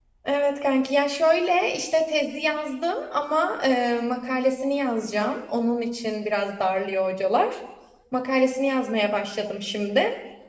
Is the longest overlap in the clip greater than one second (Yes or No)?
No